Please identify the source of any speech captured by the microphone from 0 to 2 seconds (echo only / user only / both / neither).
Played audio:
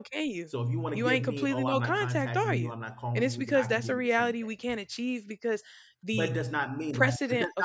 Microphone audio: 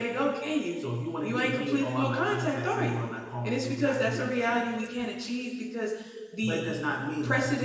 echo only